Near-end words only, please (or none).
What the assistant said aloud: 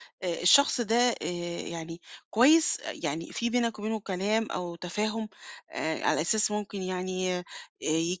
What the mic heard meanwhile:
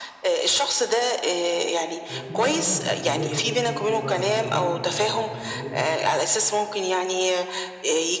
وفي بقى طبعًا يعني خروجات برضه كتير كل شوية عايزين نخرج ونروح في أماكن مختلفة،